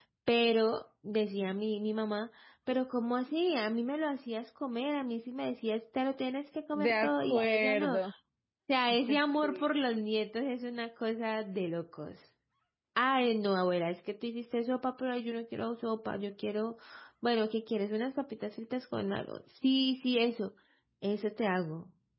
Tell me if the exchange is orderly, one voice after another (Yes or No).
No